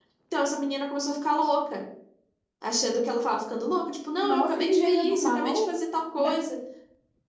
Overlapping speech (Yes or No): Yes